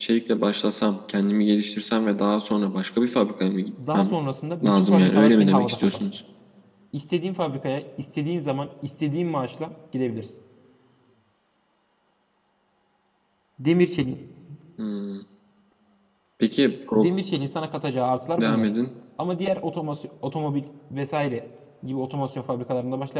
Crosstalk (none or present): present